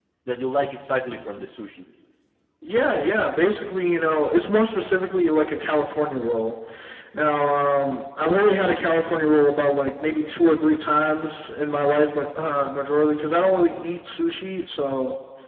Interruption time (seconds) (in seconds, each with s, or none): none